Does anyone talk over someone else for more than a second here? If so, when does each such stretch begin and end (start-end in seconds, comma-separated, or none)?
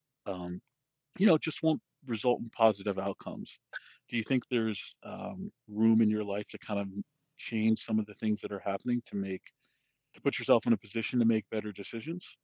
none